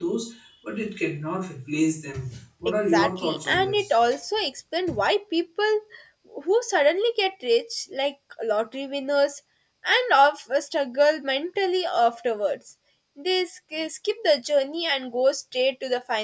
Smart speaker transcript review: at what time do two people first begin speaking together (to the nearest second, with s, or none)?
3 s